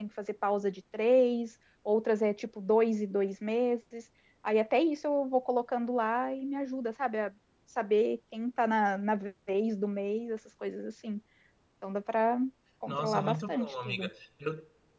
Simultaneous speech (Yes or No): Yes